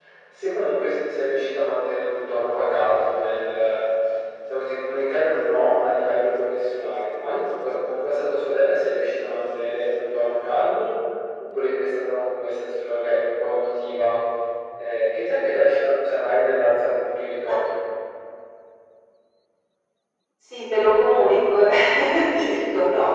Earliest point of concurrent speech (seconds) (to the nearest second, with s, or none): none